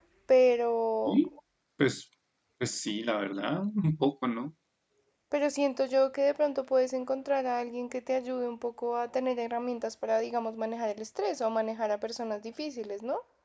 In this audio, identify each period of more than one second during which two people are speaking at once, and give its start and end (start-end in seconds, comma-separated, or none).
none